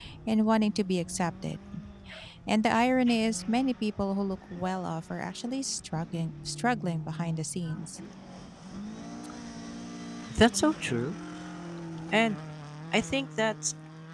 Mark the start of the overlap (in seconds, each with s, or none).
none